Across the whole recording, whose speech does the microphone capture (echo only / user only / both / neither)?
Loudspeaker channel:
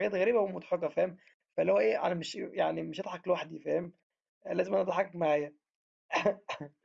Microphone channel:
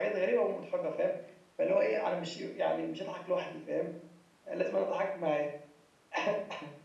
echo only